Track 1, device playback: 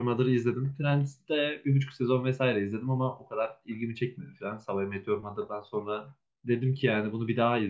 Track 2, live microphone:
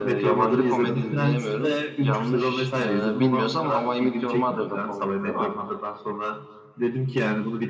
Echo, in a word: present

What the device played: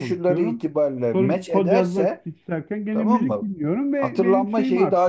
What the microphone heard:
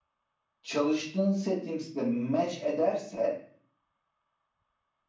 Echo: none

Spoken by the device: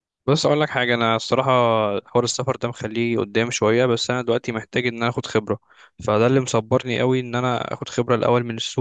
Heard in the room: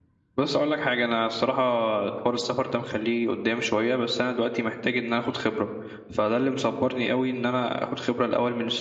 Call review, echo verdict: present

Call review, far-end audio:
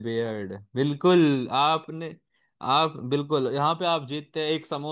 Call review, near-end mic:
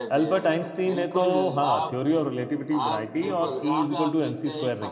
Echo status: present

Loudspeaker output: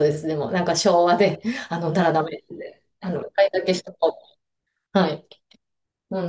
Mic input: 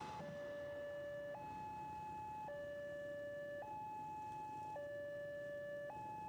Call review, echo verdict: none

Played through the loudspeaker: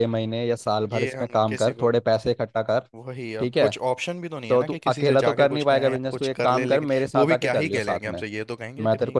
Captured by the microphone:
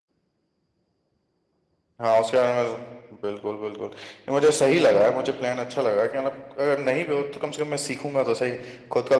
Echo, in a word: none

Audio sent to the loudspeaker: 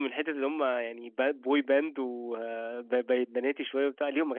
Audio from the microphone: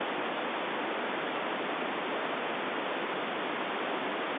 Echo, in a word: none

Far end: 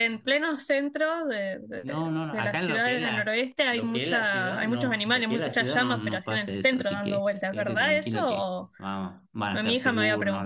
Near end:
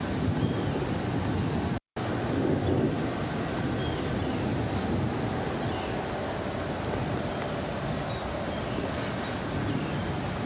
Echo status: none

